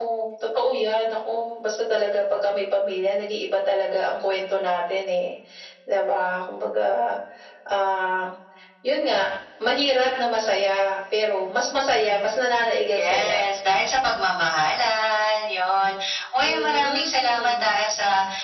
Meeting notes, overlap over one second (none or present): present